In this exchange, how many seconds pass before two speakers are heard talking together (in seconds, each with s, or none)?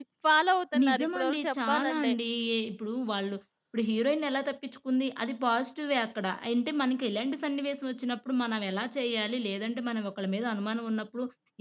0.8 s